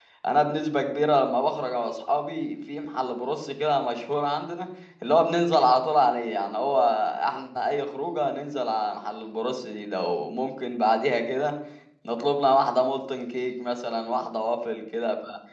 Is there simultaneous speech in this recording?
No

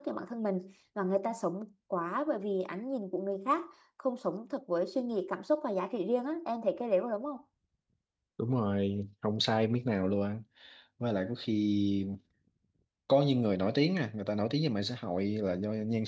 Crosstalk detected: No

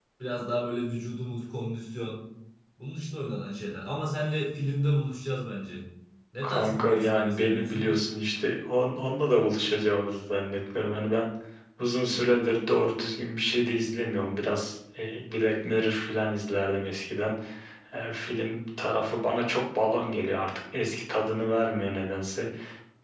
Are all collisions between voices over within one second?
No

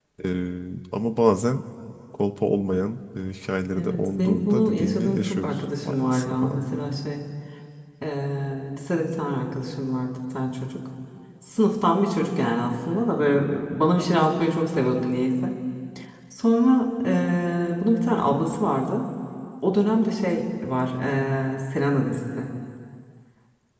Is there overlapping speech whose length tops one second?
Yes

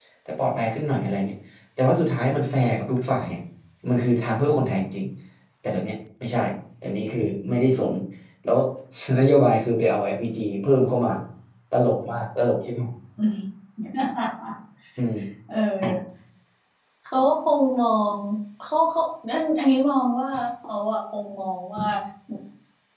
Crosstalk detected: No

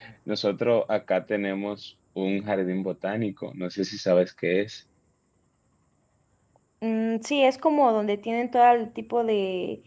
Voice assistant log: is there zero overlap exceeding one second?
Yes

